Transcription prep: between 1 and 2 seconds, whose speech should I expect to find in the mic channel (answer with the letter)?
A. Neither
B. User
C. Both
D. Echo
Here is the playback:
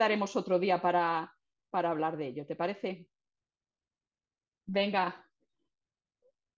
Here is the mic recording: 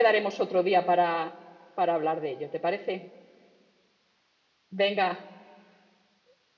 D